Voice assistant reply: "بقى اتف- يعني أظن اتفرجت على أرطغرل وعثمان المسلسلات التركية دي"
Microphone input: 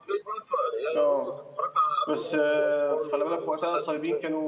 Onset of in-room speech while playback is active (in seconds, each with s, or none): 0.9 s